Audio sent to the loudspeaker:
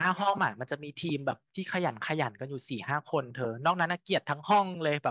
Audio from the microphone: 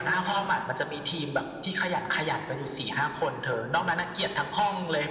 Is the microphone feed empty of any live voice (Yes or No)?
Yes